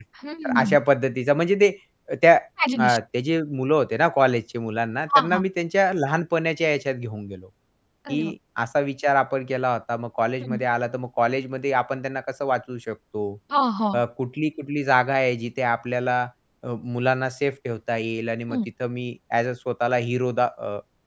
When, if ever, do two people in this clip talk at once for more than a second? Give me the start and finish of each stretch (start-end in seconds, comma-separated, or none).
none